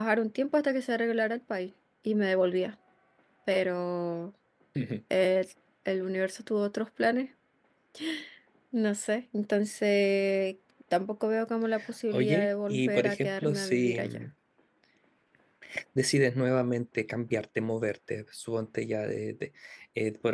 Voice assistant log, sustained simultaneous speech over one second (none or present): present